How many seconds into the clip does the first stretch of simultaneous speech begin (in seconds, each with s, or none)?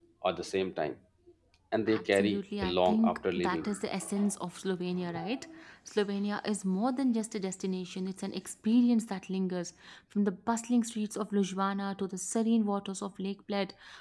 1.9 s